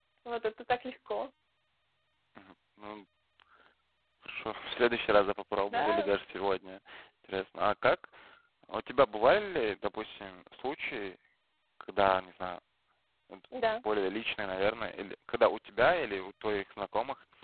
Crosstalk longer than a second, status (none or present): none